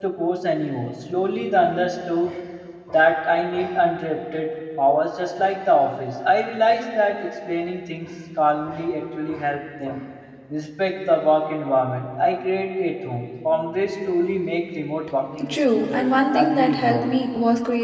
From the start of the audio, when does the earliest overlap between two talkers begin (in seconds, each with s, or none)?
15.4 s